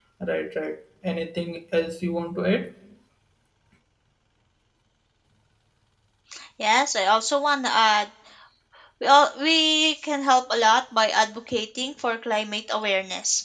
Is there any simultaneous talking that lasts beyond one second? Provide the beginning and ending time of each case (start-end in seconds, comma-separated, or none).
none